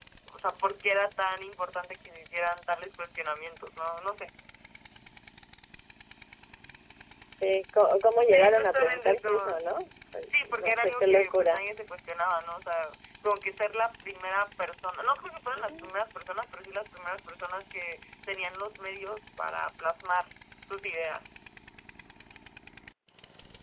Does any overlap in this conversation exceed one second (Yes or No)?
Yes